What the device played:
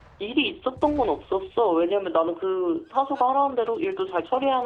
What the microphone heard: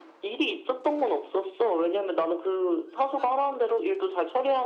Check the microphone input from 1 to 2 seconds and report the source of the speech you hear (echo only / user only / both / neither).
echo only